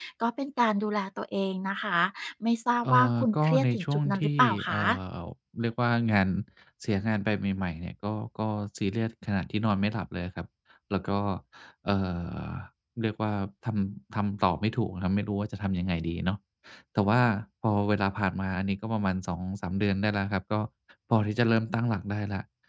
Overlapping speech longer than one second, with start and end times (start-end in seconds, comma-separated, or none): 2.8-4.8